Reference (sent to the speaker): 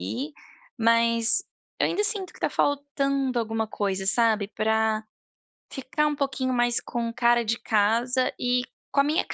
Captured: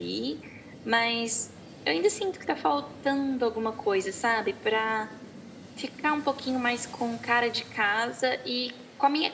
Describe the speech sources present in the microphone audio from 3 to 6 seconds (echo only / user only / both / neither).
echo only